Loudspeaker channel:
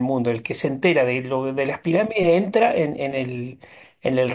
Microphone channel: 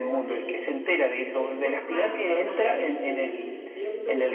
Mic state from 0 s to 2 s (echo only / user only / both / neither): both